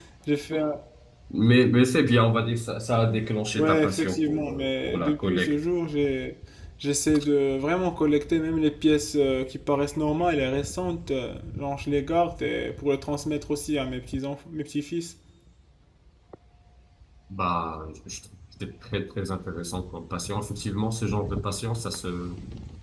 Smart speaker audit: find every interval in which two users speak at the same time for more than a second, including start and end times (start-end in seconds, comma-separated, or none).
3.6-5.5